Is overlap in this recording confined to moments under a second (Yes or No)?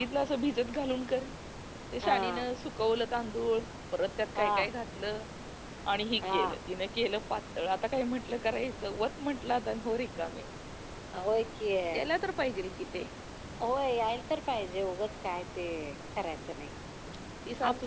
Yes